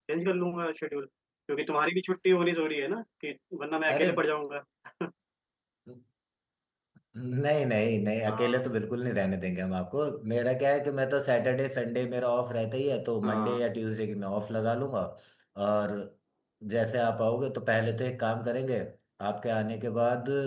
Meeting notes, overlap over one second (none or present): none